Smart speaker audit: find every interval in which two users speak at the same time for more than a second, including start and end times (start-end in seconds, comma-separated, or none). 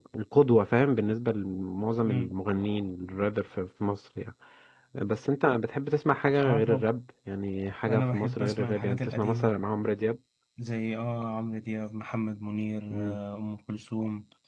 7.9-9.5